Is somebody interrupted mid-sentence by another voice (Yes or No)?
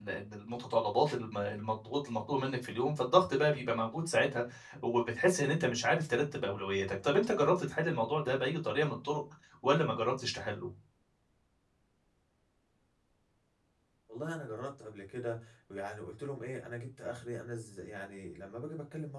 No